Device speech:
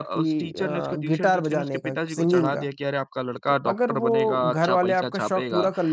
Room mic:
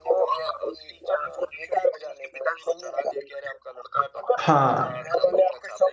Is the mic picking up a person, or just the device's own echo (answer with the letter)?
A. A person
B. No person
A